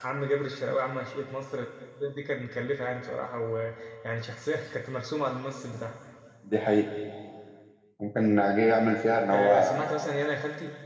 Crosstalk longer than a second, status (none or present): none